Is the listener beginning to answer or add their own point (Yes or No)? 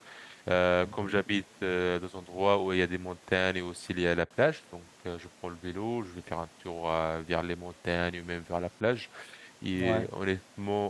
No